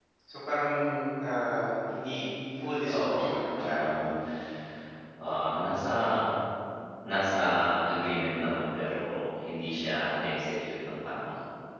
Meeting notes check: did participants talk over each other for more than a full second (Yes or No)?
Yes